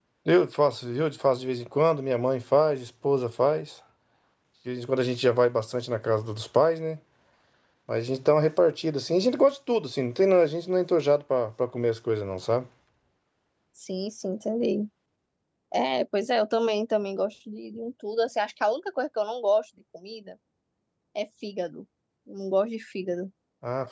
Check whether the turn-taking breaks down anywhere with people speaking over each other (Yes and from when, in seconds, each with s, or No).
No